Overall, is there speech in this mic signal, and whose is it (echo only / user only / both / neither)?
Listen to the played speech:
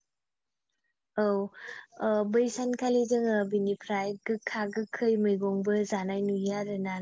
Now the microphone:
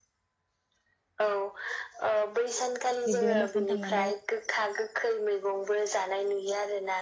both